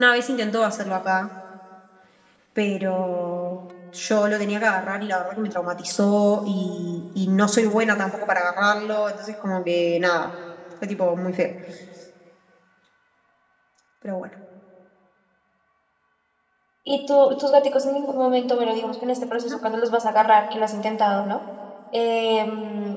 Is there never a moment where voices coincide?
Yes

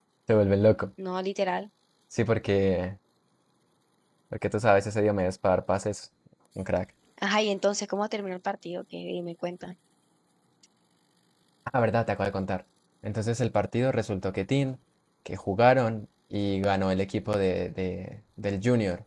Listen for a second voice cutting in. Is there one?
No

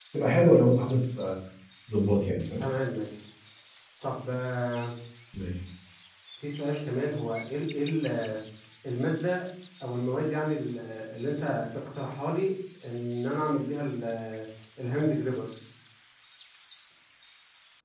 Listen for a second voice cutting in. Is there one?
No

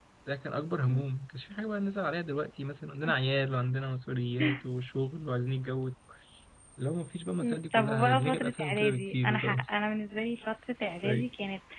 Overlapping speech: Yes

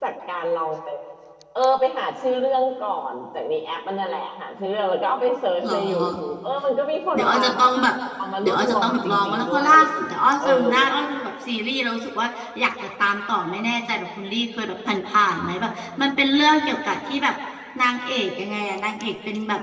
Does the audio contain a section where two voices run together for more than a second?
Yes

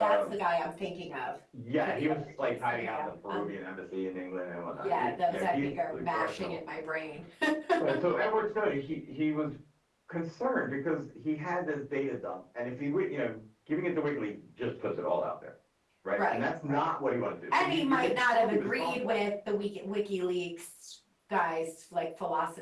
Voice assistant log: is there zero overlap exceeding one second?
No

